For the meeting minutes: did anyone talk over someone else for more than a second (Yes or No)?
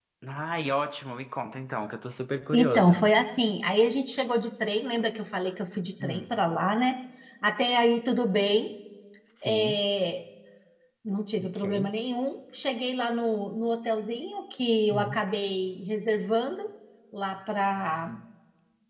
No